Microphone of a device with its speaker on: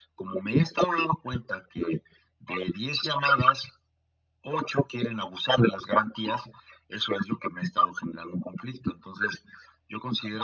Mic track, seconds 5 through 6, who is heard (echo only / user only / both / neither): echo only